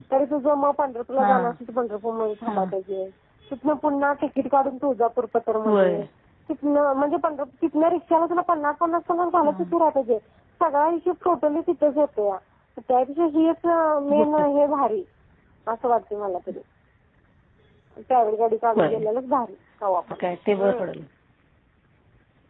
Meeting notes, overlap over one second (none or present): none